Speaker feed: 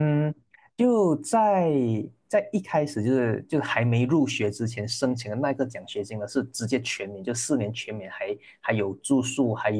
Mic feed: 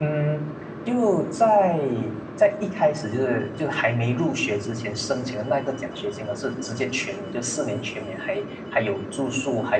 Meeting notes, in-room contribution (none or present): none